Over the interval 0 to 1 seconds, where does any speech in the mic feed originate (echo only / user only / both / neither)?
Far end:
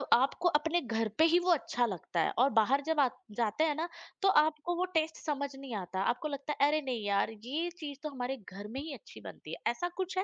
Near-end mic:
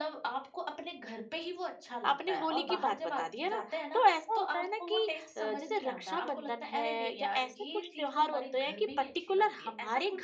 echo only